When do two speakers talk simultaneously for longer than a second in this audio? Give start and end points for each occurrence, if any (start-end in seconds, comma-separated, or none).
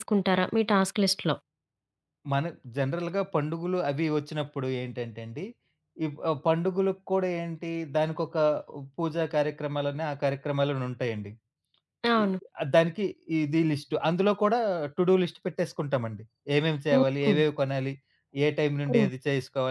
none